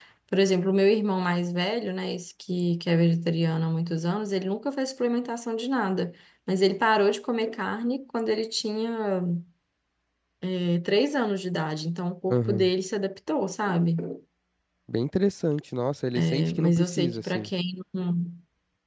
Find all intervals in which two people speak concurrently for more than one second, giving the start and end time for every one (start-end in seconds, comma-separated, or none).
16.2-17.5